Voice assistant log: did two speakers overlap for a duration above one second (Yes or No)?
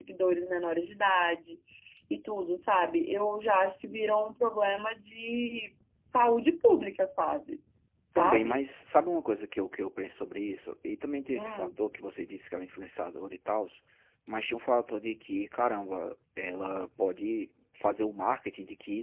No